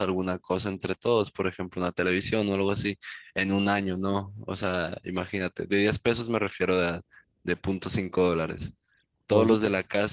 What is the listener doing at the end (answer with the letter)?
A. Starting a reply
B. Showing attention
B